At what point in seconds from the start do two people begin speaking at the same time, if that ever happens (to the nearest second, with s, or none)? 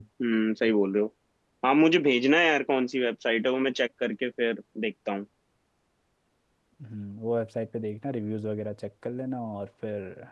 none